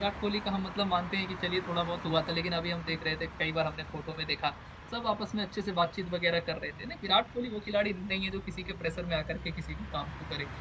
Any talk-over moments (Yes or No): No